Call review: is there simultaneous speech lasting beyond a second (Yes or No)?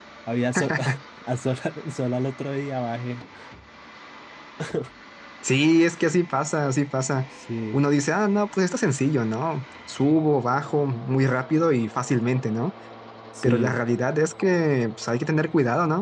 No